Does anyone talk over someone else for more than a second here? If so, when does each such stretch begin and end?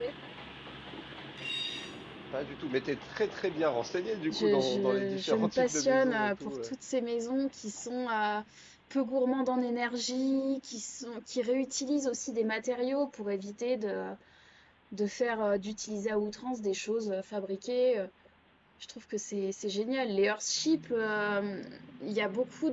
4.3-6.7

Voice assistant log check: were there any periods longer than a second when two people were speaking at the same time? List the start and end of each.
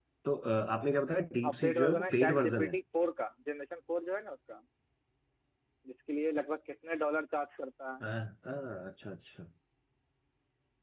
1.4-2.8

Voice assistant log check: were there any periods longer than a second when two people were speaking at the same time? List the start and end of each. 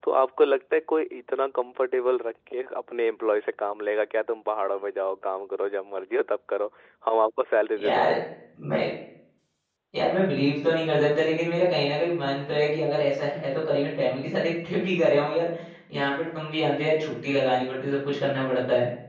none

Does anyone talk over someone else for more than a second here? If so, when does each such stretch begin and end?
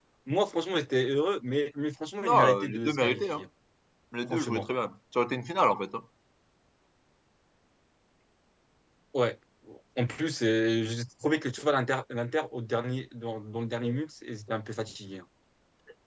2.2-3.4

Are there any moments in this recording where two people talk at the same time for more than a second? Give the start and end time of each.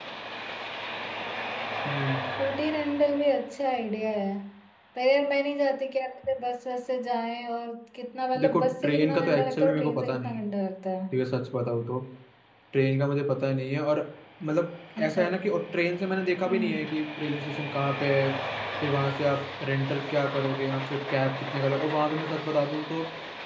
8.4-10.4

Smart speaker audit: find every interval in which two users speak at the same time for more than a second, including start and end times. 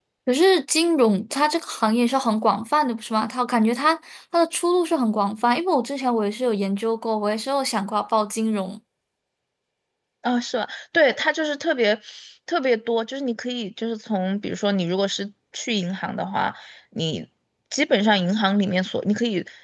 none

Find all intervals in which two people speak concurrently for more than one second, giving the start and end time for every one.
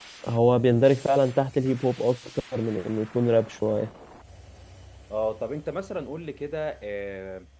none

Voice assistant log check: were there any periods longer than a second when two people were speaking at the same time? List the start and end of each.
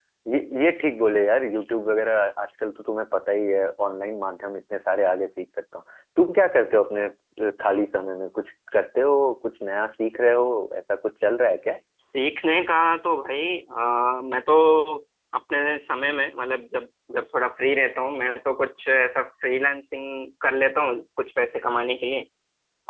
none

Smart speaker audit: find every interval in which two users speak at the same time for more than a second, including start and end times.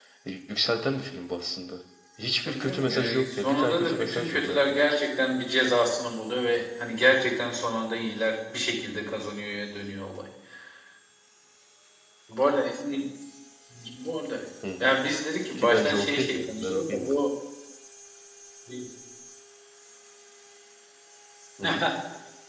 2.5-4.8, 15.6-17.2

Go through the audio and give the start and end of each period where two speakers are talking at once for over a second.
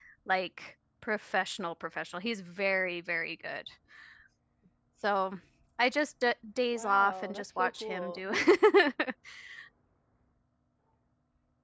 6.7-8.2

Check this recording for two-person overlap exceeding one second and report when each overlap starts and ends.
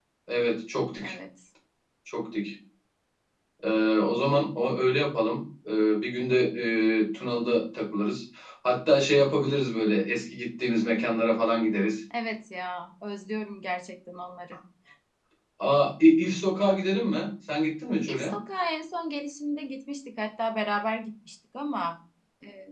none

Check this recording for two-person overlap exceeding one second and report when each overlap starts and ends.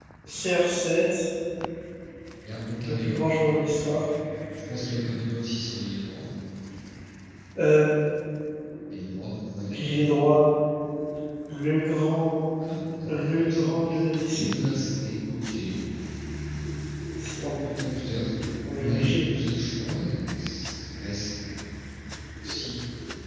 13.2-14.4

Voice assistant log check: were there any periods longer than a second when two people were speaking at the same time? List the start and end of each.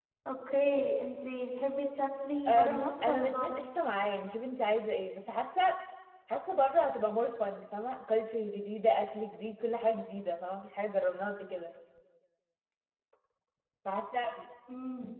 2.5-3.7

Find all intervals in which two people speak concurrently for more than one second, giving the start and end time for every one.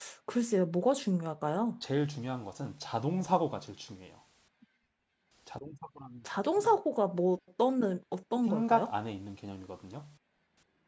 none

